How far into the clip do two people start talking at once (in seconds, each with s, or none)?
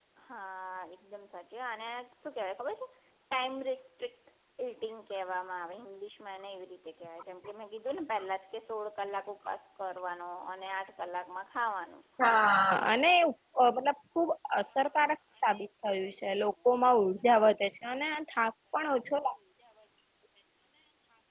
none